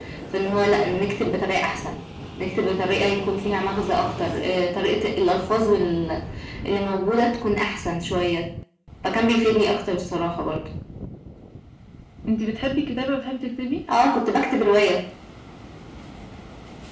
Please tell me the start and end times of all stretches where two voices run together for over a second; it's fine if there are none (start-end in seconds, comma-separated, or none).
none